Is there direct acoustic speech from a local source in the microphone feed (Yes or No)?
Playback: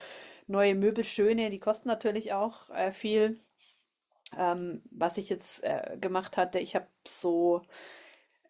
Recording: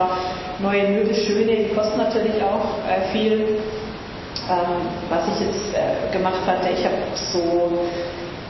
No